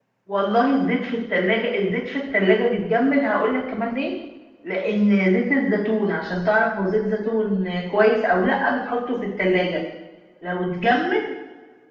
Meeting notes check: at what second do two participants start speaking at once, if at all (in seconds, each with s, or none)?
none